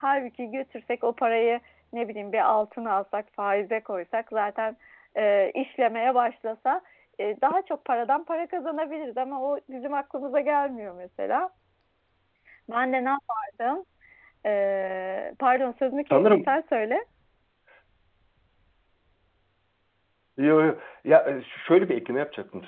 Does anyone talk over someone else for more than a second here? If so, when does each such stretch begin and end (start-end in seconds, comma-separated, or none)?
none